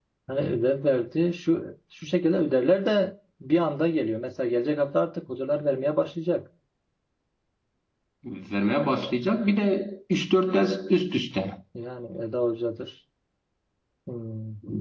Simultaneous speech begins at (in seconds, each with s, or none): none